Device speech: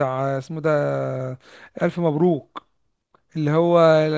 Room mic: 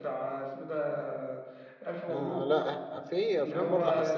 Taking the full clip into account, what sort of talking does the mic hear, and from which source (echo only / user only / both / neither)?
both